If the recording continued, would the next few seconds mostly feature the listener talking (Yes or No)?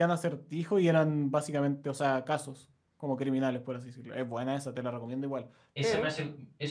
Yes